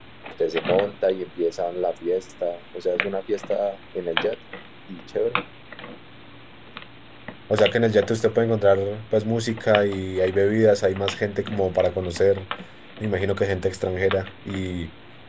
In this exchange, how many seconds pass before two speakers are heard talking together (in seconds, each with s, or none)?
none